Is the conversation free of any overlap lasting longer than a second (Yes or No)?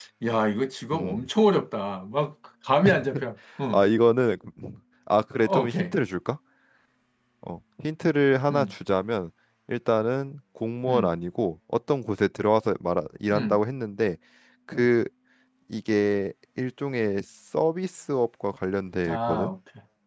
Yes